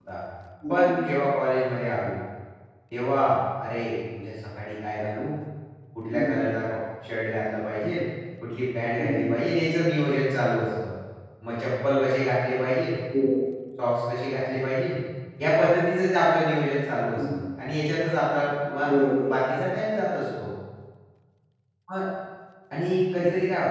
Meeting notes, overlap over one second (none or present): none